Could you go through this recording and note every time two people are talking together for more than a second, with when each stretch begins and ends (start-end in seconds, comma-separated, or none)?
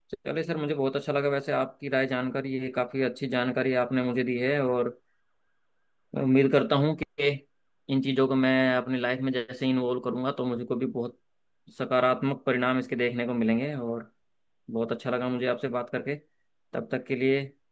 none